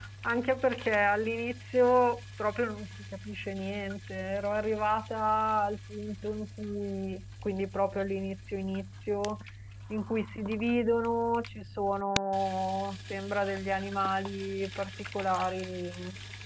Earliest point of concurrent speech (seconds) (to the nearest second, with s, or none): none